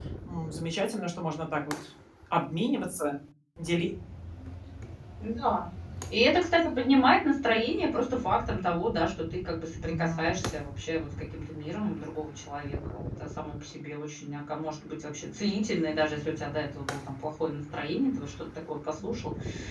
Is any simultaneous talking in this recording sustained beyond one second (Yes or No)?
No